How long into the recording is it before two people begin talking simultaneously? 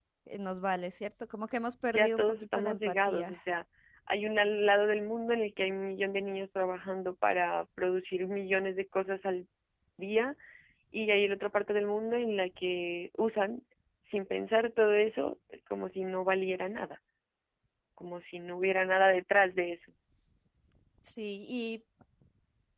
1.9 s

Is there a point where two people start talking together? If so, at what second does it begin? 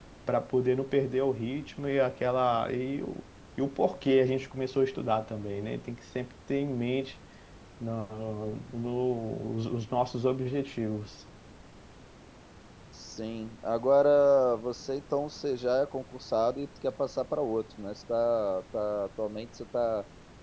none

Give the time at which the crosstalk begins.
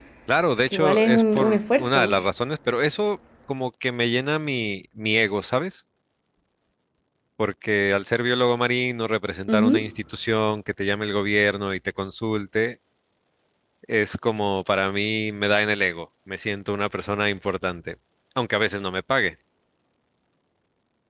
0.7 s

